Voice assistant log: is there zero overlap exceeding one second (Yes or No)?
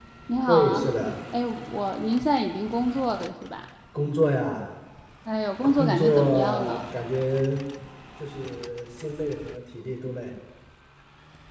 No